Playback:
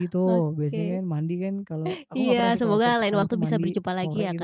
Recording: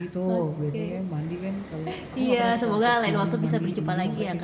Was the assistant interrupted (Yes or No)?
Yes